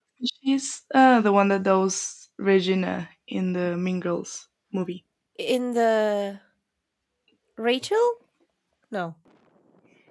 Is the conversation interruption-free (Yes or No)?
Yes